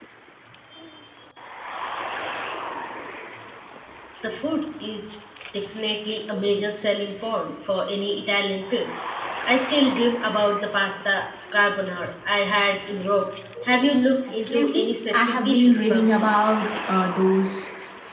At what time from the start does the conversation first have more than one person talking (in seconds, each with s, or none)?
14.4 s